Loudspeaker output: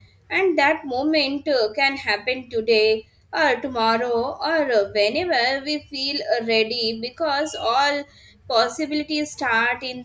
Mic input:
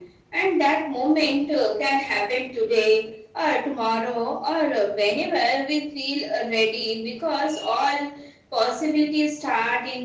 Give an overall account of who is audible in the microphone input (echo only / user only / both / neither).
echo only